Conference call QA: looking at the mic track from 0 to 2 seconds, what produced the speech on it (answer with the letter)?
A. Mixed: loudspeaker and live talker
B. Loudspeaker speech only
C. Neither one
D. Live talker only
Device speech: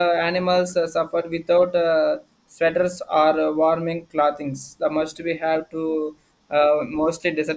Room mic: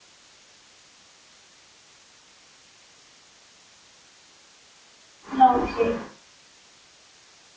C